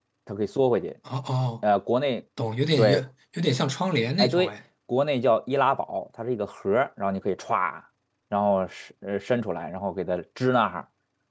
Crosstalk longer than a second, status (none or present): none